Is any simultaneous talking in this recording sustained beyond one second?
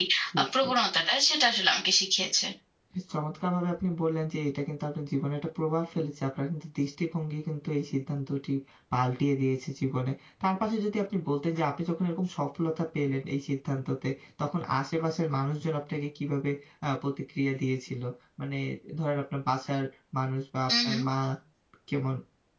No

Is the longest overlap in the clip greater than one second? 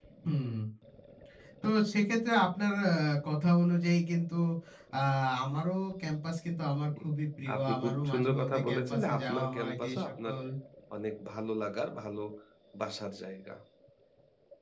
Yes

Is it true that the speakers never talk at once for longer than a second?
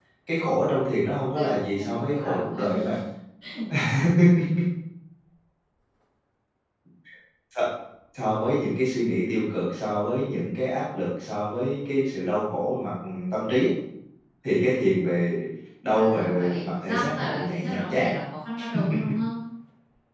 No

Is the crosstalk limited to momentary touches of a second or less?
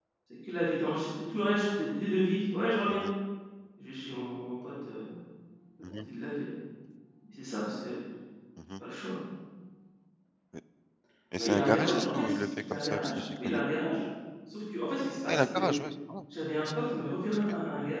No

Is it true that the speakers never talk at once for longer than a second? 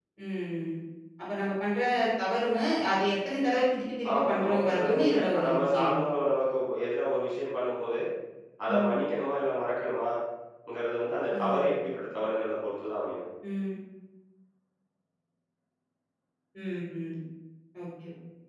No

